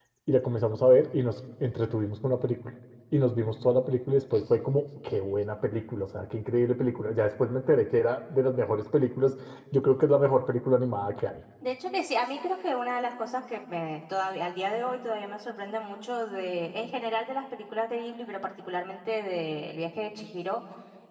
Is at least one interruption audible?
No

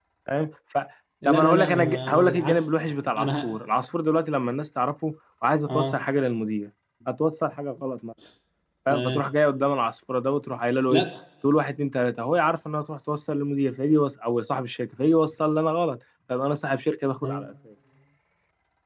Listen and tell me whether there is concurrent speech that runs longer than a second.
Yes, from 1.2 s

